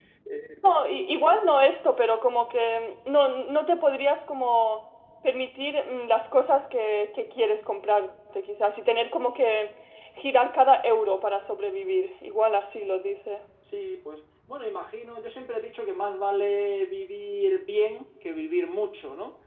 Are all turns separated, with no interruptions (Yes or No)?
Yes